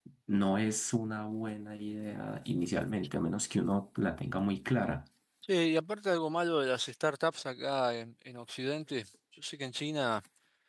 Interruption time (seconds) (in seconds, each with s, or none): none